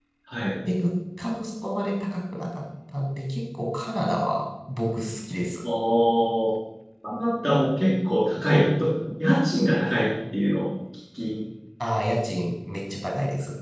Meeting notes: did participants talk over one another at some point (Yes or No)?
No